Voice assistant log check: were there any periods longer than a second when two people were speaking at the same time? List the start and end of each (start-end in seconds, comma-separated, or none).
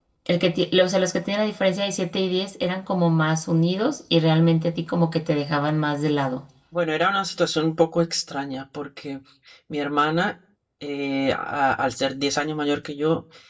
none